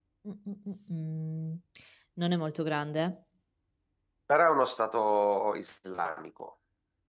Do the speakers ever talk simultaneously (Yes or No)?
No